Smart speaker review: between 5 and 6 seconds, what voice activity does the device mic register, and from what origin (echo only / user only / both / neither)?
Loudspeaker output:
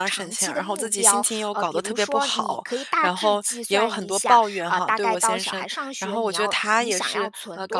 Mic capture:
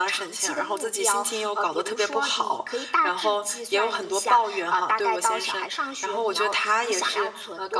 echo only